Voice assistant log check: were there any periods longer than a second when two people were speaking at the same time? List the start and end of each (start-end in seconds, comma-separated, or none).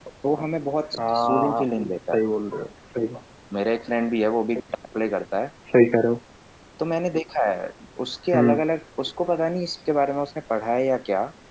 1.0-2.2